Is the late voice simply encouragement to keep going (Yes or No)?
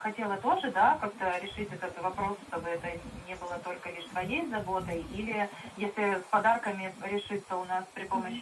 Yes